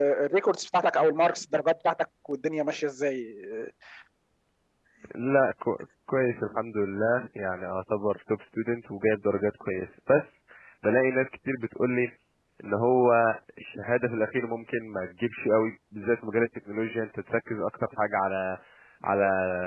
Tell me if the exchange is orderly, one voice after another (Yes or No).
Yes